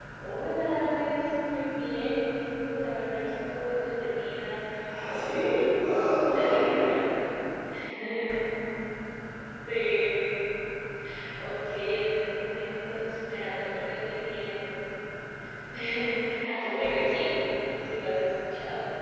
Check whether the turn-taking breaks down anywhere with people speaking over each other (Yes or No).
Yes